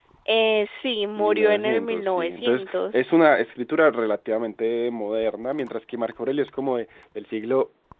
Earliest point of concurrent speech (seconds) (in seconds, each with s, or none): 1.2 s